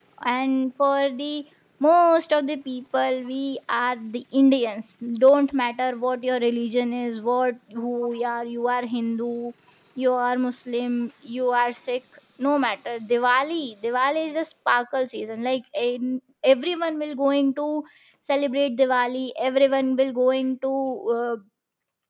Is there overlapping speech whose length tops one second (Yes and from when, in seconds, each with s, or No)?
No